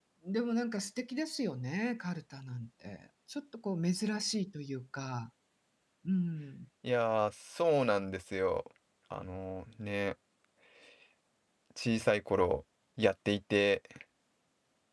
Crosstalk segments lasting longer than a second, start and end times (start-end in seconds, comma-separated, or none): none